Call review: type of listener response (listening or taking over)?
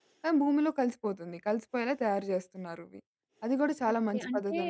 taking over